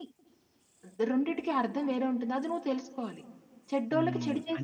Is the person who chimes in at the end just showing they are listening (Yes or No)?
No